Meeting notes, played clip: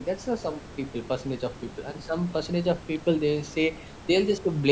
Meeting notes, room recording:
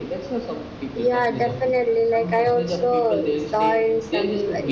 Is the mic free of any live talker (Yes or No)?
No